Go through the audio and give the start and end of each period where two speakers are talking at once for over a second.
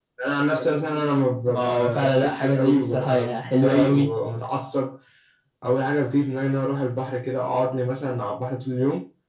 1.5-4.1

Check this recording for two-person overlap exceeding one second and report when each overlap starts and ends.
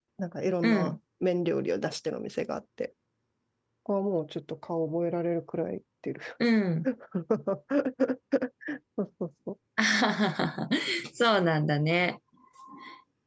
none

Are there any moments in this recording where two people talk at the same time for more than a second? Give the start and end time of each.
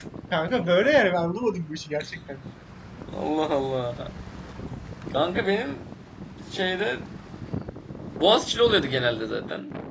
none

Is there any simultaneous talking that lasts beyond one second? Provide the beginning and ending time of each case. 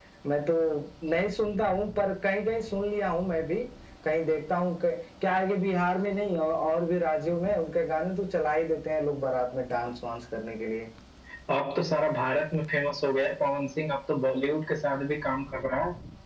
none

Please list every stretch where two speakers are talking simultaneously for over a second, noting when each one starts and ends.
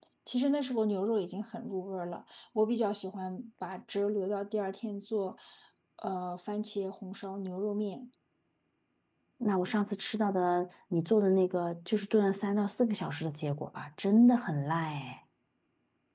none

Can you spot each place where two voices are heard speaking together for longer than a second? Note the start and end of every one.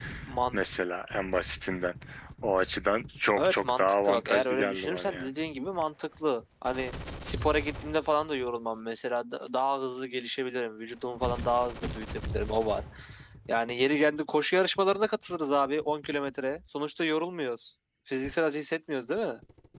3.4-5.3

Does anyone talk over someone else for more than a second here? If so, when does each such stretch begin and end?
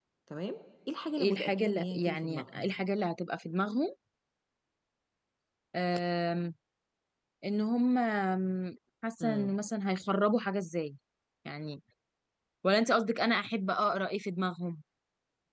1.2-2.6

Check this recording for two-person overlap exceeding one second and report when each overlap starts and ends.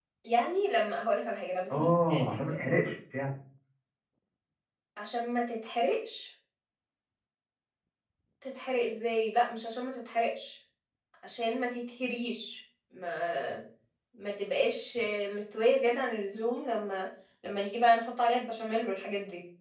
1.7-2.9

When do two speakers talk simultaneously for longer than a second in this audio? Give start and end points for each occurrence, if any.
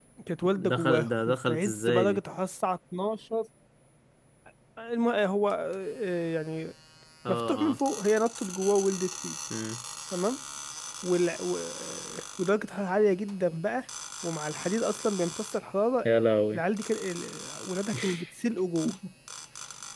0.7-2.2

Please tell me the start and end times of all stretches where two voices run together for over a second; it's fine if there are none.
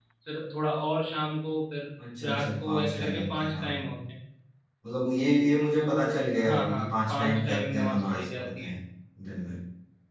2.3-3.7, 5.7-8.7

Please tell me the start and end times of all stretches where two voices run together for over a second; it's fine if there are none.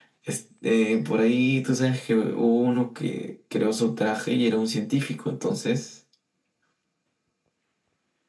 none

